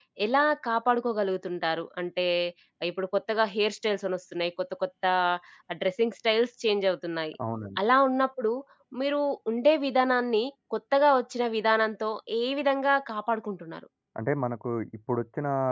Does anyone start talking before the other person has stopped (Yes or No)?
No